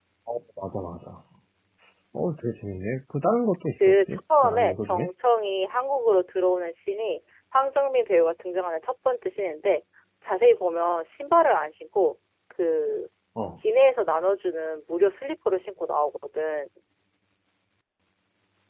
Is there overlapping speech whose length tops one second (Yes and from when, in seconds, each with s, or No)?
Yes, from 3.8 s